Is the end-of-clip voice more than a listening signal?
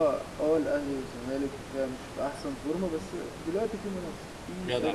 No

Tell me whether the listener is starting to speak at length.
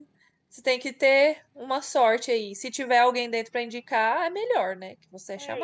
Yes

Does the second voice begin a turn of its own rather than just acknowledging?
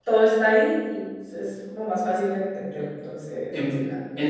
Yes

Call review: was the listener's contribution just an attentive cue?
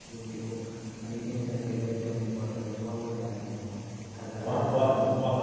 No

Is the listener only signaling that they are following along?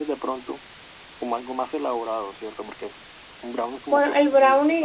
No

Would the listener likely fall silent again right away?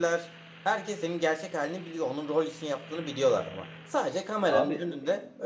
Yes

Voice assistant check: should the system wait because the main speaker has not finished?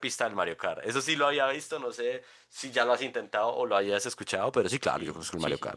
No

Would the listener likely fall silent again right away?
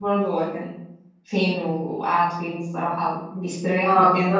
No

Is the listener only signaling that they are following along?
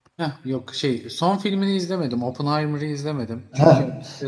Yes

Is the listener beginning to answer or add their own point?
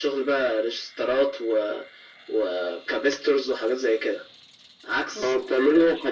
Yes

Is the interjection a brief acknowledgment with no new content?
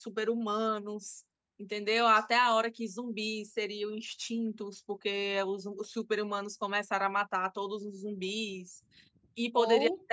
Yes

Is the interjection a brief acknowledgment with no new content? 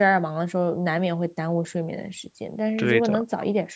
Yes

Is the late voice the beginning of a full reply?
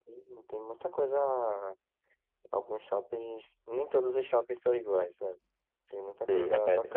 Yes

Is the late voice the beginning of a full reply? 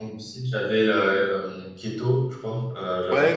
Yes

